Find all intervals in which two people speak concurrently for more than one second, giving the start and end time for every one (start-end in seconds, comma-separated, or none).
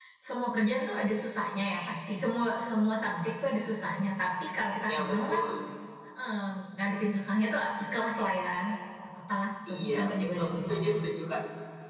9.6-11.0